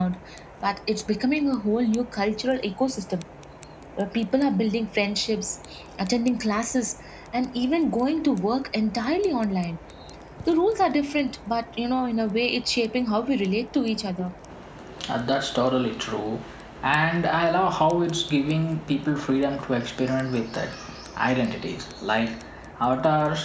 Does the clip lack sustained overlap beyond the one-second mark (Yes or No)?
Yes